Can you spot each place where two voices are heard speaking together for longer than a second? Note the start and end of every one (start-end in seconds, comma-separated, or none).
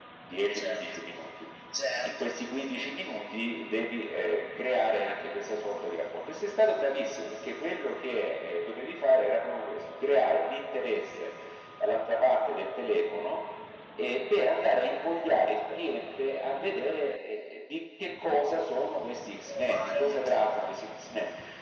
19.5-20.7